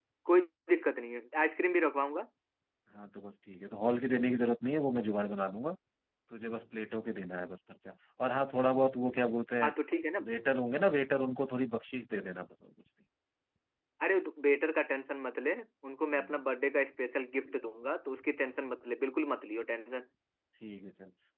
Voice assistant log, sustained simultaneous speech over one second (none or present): none